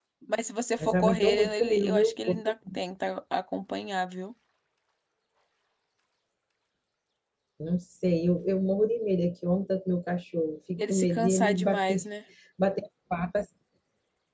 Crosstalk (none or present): present